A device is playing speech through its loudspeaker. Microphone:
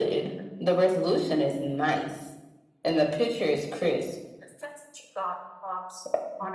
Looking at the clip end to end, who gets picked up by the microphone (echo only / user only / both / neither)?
echo only